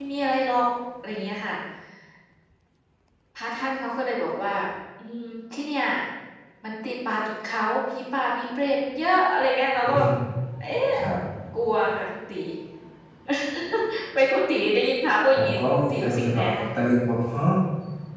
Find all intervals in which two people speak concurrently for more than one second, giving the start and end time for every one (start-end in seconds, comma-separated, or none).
15.3-16.5